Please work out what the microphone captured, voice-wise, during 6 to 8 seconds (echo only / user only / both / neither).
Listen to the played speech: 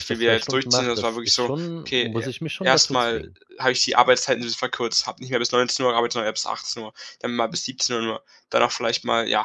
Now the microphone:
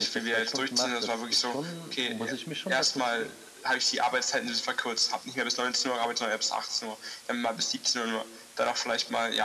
echo only